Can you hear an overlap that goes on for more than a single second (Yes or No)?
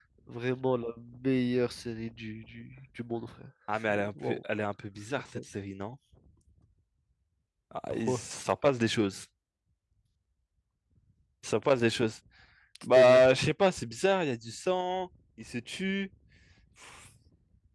No